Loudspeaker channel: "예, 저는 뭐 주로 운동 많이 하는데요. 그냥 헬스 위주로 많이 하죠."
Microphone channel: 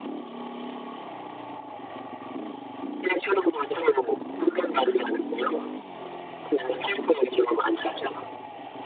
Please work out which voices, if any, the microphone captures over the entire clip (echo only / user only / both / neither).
echo only